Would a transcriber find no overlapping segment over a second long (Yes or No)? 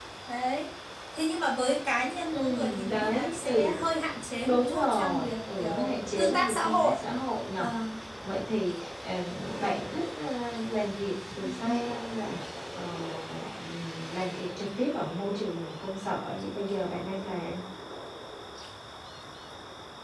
No